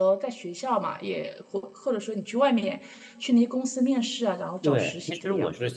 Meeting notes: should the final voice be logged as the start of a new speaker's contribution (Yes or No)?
Yes